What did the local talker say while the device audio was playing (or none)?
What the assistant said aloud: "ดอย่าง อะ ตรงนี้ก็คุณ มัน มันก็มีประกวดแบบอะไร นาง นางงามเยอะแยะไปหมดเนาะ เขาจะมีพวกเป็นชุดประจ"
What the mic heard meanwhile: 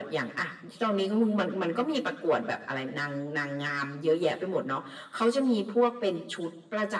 none